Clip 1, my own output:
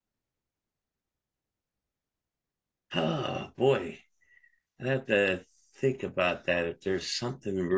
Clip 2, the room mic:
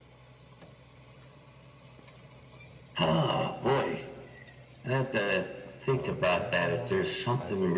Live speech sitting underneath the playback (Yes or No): Yes